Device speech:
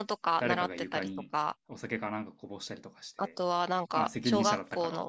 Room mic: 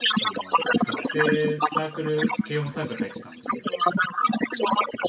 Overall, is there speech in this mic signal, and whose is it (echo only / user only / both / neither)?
both